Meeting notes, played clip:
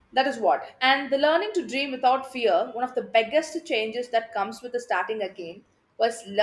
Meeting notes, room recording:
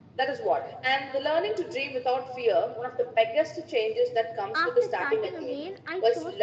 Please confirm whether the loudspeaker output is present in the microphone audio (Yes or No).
Yes